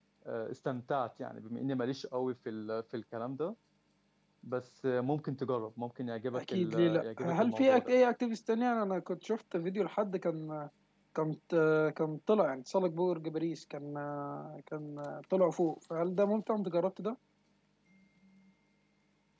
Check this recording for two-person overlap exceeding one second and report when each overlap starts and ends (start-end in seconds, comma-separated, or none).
6.3-7.9